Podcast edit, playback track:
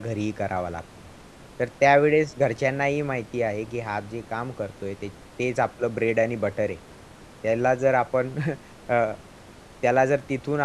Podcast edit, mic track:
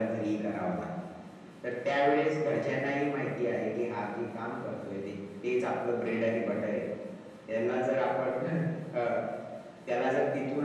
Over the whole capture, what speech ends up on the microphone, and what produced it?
echo only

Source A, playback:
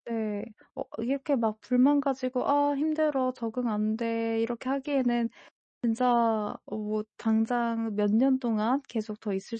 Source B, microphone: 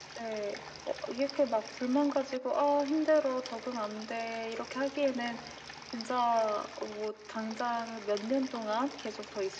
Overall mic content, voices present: echo only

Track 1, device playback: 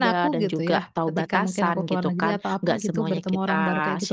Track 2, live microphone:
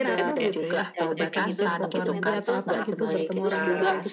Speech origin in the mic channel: both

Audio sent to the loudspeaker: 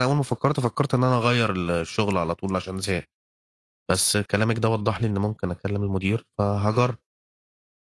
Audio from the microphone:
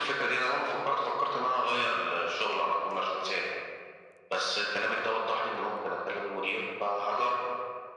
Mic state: echo only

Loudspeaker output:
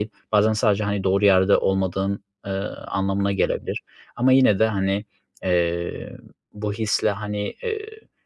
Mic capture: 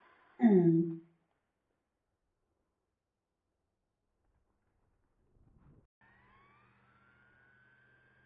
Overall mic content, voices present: user only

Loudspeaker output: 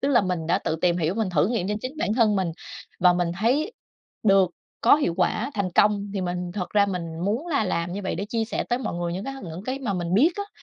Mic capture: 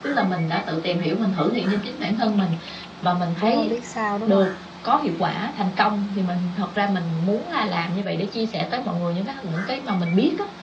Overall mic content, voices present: both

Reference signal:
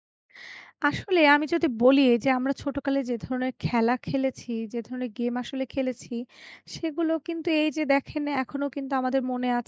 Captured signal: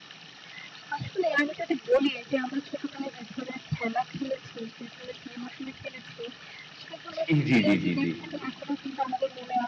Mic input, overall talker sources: both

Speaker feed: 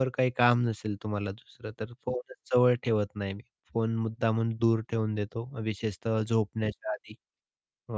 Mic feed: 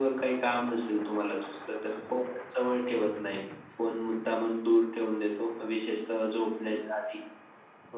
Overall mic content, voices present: echo only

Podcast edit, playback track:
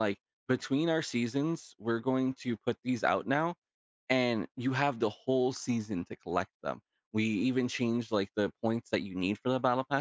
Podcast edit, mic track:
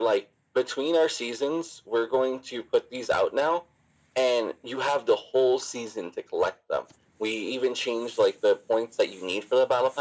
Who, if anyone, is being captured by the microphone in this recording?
echo only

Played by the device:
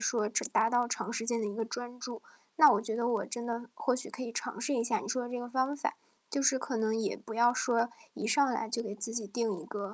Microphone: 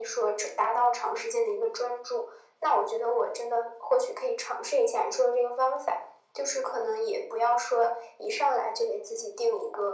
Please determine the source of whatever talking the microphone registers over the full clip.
echo only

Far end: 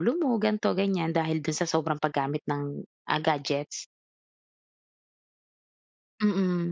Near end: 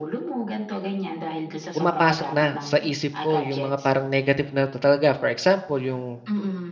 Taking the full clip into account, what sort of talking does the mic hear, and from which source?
both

